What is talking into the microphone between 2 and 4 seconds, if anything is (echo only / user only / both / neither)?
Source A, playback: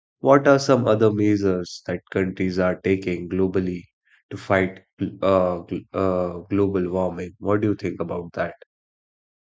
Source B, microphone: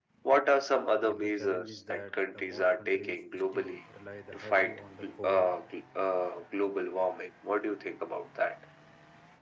both